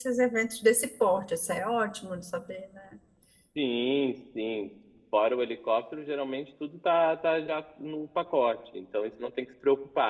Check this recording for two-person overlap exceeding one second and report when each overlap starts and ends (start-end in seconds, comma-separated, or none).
none